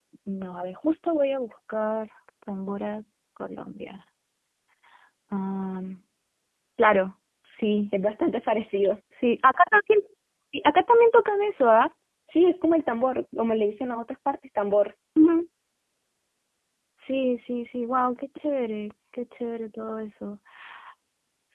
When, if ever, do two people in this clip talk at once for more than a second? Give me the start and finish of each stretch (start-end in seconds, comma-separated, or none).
none